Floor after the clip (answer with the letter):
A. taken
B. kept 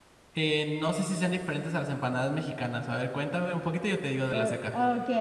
A